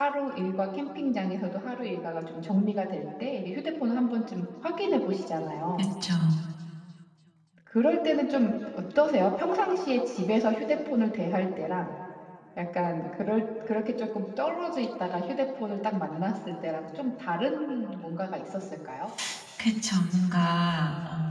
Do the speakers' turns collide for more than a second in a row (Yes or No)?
No